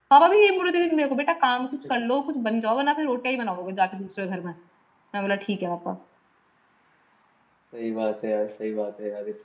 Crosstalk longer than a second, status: none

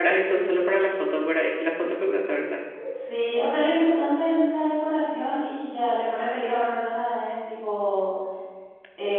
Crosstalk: none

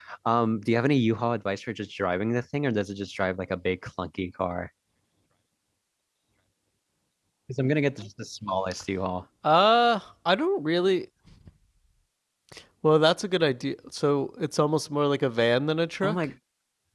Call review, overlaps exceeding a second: none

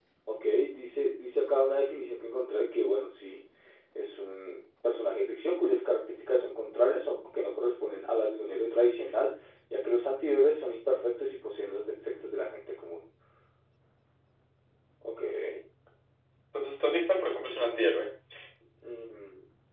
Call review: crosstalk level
none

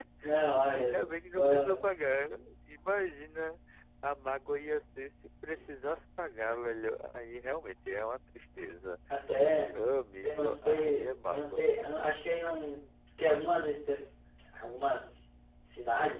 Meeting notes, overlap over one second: present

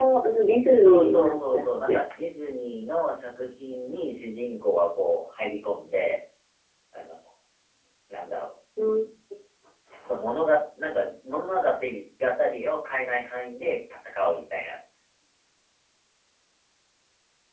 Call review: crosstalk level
present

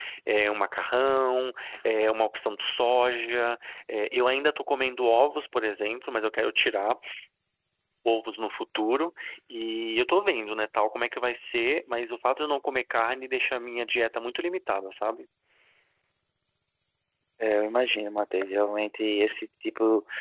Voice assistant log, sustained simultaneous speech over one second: none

